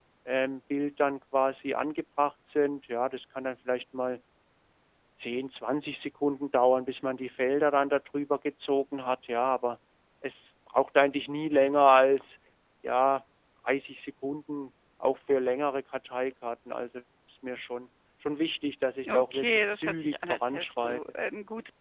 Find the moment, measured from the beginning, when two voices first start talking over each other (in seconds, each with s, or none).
19.0 s